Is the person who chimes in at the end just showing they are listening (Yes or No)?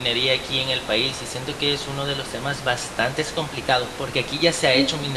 Yes